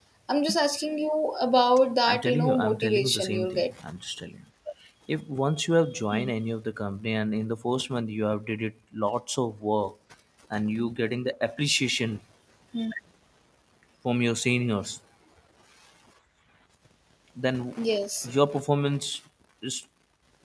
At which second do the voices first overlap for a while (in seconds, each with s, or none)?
2.1 s